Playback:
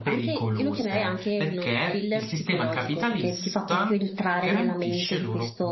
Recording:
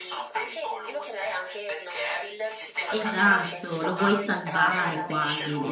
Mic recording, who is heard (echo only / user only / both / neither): both